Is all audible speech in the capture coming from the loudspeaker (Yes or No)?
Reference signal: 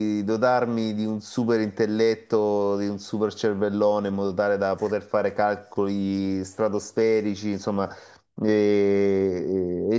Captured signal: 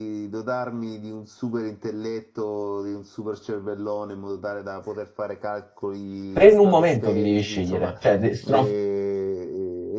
No